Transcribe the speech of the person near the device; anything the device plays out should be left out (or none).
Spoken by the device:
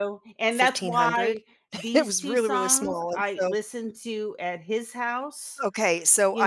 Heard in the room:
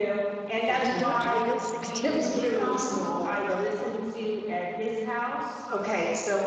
And don't you feel 16 again?